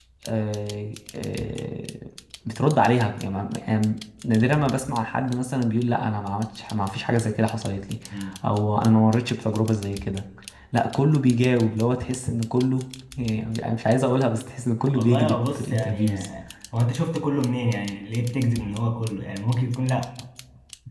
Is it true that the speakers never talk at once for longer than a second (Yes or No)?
No